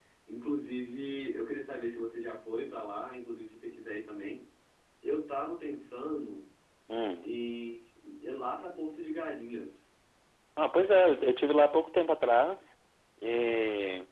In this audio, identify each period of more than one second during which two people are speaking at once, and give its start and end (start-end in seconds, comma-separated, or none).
none